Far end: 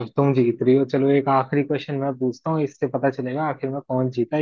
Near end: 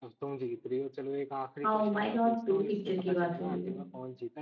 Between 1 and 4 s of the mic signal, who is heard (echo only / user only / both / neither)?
both